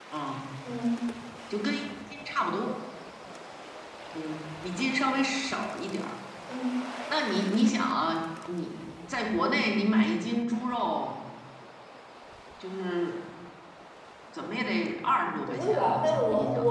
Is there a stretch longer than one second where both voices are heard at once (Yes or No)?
Yes